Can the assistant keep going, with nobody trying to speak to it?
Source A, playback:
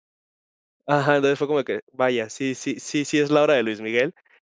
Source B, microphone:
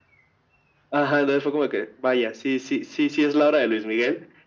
Yes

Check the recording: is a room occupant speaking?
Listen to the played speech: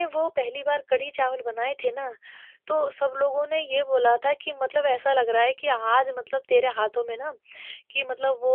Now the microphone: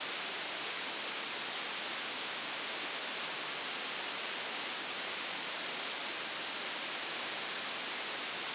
No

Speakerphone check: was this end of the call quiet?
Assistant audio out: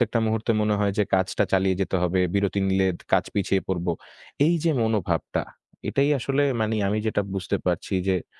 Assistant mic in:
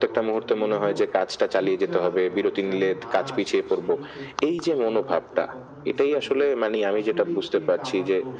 No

